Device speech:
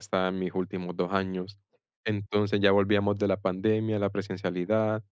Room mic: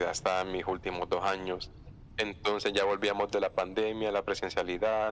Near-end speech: none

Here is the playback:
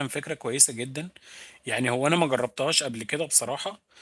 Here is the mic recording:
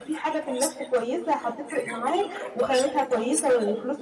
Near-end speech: present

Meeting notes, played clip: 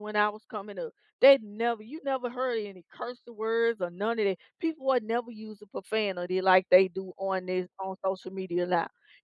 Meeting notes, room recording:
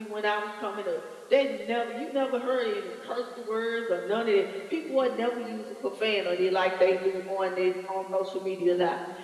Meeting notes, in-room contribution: none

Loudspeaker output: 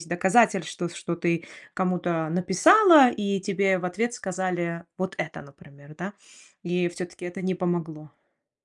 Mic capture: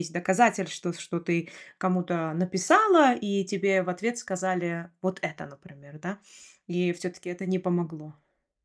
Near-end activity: none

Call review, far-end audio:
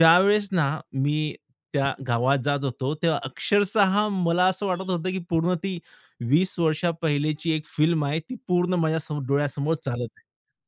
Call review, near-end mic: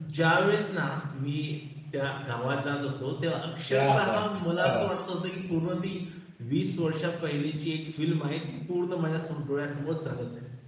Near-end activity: present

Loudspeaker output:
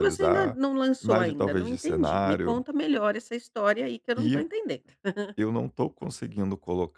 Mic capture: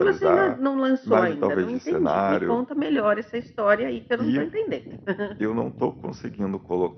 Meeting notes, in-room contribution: none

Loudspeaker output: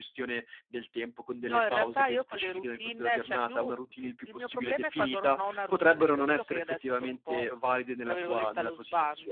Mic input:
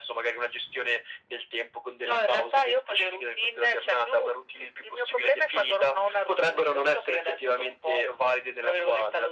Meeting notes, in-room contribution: none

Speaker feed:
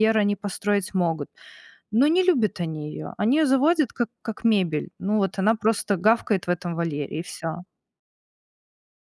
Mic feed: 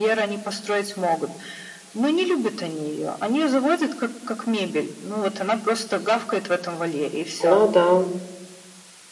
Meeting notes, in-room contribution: present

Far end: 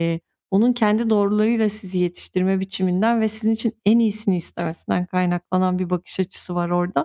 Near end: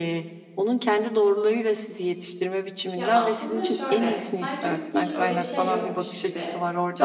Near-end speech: present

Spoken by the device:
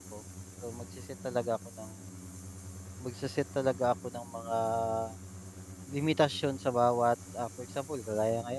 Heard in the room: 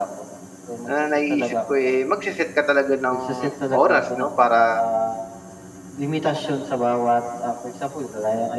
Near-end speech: present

